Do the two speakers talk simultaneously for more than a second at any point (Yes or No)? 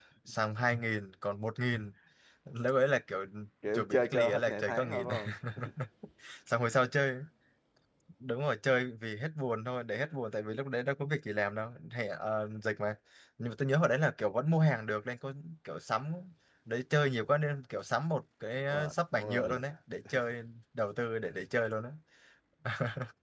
Yes